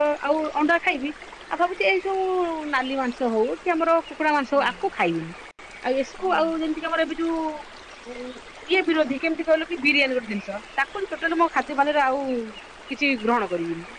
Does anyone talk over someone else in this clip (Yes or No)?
No